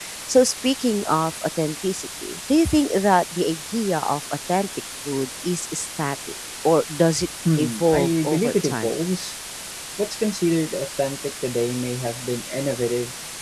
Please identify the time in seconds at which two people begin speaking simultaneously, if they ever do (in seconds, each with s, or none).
7.5 s